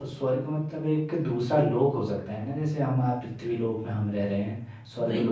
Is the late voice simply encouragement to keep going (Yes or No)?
Yes